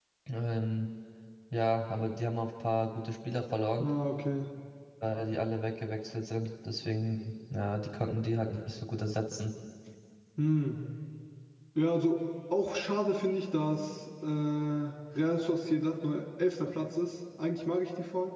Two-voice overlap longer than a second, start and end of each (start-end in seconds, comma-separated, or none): none